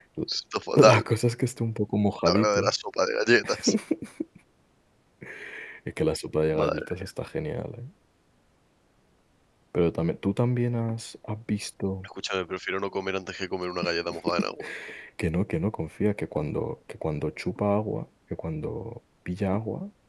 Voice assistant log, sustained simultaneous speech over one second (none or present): none